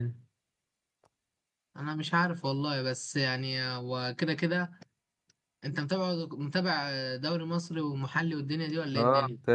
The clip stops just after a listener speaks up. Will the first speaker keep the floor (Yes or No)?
No